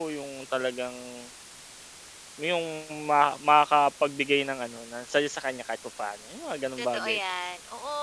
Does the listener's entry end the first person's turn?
Yes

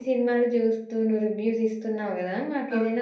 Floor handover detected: No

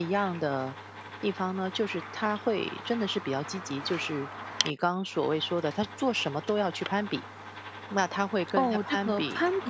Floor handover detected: Yes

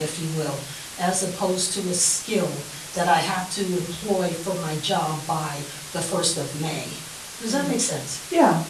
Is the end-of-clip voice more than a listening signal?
Yes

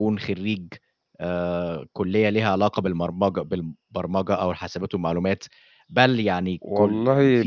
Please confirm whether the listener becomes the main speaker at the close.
No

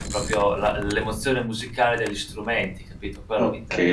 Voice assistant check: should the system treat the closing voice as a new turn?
Yes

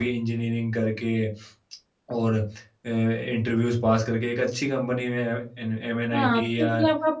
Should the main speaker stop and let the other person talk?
Yes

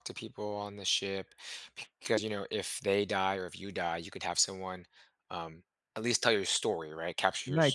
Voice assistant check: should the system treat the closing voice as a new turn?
Yes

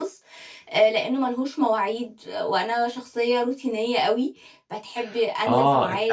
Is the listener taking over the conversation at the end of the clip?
Yes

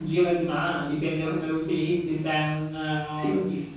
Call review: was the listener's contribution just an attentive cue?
Yes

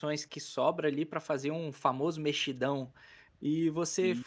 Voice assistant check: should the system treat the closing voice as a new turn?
No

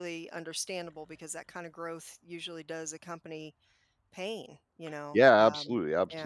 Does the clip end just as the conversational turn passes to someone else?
Yes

